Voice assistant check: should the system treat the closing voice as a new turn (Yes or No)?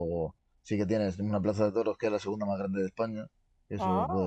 No